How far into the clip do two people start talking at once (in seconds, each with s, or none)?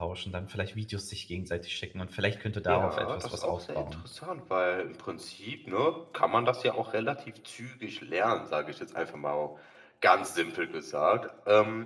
2.7 s